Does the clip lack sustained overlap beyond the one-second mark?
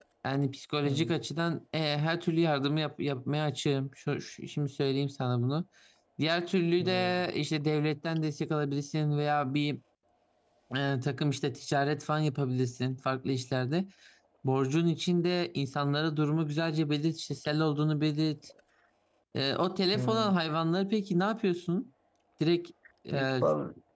Yes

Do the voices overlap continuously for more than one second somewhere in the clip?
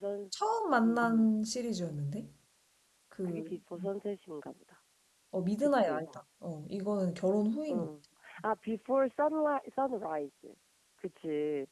No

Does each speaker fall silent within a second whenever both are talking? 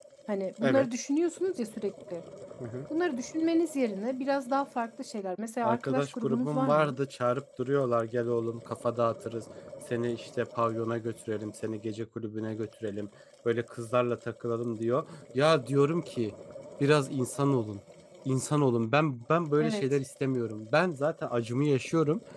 No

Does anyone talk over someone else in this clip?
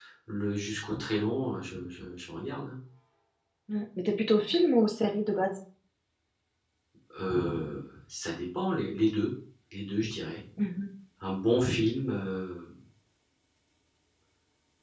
No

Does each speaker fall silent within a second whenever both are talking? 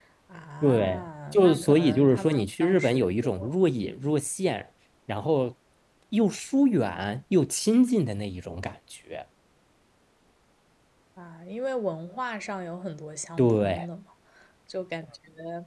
No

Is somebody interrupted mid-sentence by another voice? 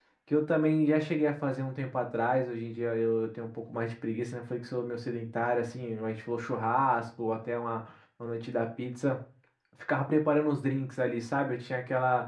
No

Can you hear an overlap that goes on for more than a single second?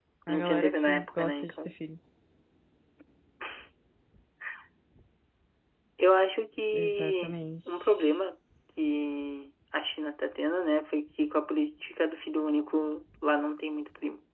Yes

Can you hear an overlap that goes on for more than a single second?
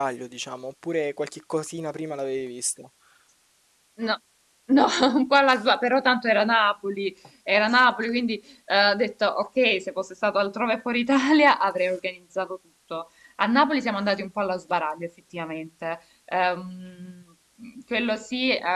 No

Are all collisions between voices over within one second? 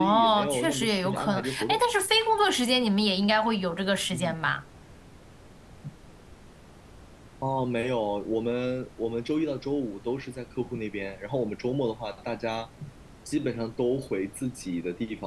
No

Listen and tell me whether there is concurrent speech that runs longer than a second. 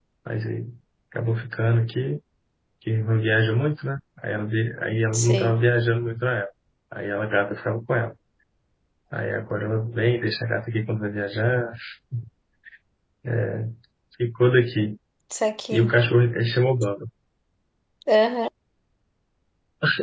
No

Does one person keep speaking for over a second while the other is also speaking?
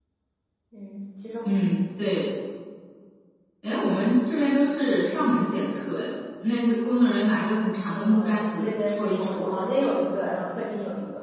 Yes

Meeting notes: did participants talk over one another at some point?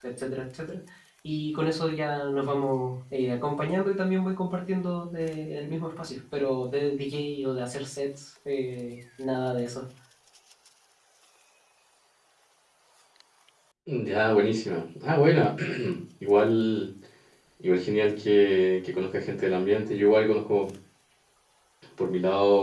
No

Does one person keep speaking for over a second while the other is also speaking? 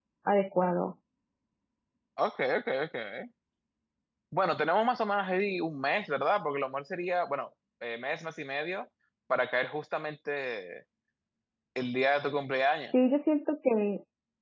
No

